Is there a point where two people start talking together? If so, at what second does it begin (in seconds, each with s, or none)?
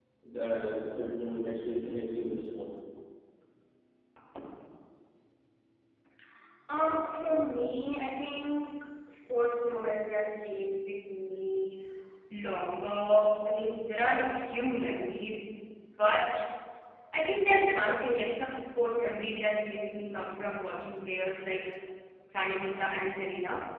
none